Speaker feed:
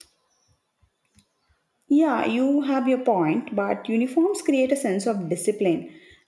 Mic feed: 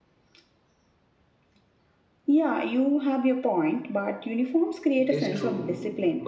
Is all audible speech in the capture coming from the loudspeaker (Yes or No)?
No